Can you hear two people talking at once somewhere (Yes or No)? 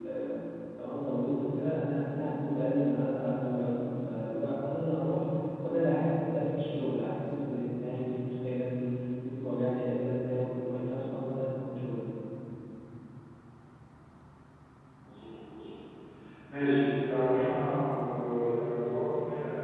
No